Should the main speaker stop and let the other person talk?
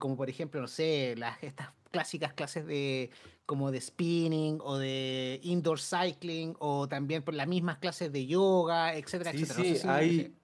Yes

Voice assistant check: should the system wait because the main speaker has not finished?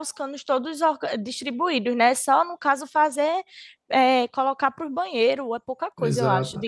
No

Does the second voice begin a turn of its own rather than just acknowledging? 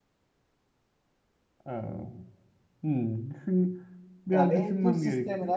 Yes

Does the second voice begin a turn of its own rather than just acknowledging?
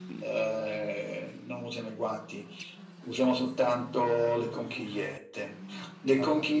No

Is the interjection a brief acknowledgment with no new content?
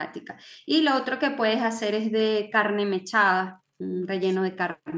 Yes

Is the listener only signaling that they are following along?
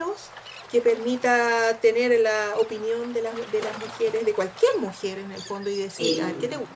Yes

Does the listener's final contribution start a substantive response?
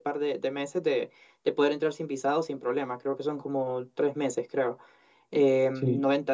No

